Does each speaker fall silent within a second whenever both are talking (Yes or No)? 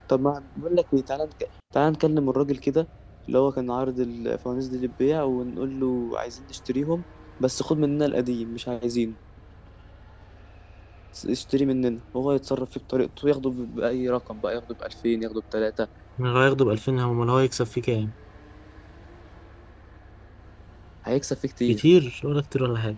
Yes